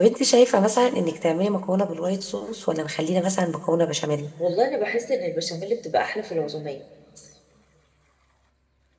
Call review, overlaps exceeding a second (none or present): none